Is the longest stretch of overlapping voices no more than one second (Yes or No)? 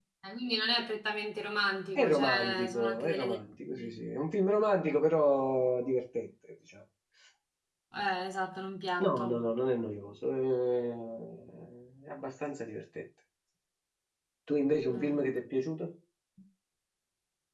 No